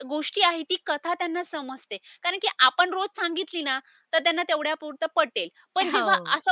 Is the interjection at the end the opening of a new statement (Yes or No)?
No